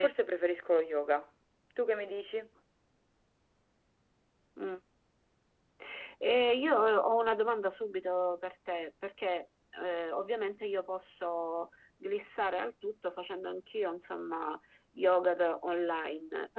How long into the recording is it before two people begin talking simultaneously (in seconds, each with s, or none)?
none